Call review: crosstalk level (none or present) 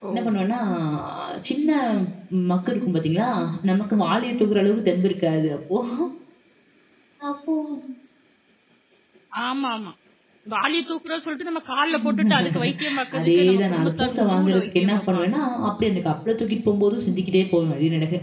present